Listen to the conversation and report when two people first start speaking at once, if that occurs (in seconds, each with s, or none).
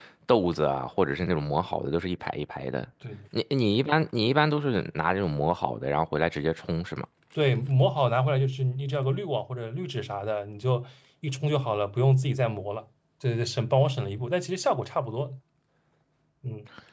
none